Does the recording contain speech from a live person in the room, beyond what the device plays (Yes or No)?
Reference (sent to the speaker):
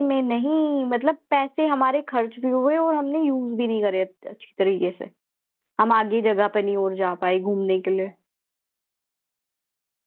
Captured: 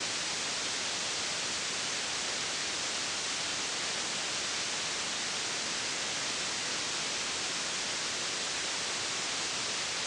No